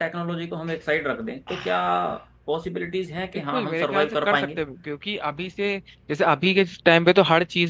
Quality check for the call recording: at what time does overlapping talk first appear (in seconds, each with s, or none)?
3.3 s